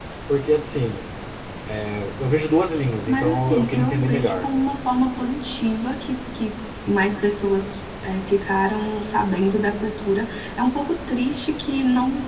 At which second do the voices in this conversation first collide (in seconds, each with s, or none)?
3.0 s